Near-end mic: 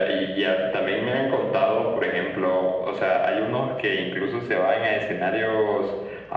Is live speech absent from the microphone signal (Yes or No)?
Yes